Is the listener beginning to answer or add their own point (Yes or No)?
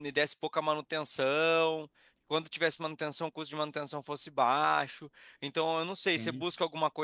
No